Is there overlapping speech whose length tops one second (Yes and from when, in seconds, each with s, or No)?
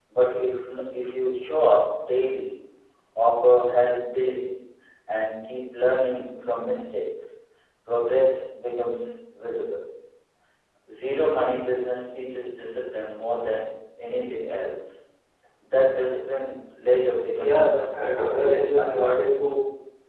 Yes, from 17.4 s